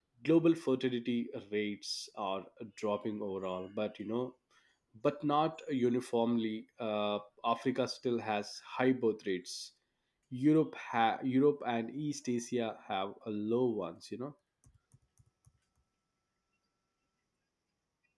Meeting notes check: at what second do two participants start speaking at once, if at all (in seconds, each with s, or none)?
none